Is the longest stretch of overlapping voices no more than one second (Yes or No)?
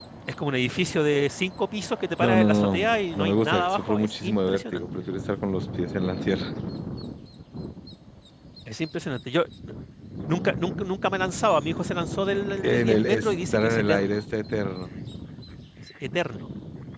No